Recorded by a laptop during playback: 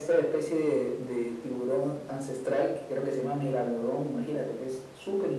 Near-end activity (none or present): none